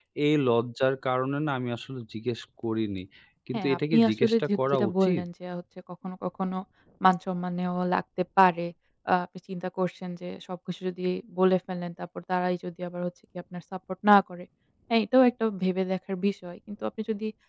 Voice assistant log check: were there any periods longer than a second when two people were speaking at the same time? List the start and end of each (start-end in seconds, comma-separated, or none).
3.5-5.2